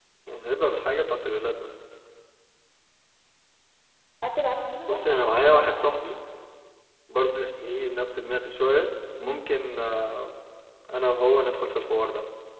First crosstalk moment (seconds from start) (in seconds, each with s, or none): 4.9 s